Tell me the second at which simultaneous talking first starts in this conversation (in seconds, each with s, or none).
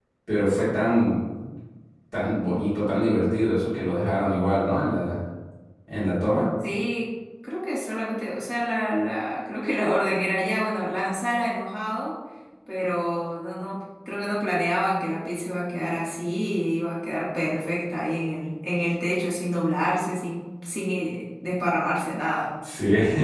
none